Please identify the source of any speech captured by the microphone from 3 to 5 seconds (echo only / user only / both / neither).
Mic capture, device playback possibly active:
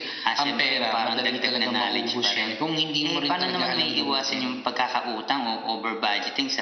echo only